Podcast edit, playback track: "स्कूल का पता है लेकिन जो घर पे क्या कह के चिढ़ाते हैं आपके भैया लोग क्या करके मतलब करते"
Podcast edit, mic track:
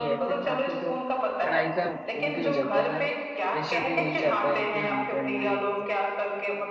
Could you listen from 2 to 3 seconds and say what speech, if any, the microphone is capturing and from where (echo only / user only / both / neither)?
both